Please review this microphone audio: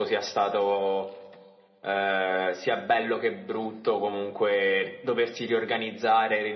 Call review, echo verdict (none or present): present